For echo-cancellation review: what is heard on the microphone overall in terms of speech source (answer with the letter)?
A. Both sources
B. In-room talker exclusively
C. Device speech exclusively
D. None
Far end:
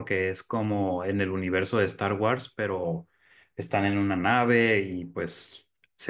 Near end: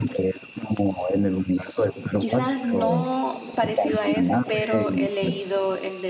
A